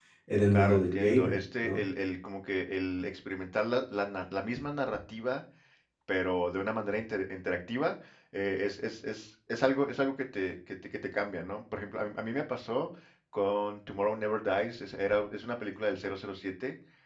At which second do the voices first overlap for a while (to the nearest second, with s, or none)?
1 s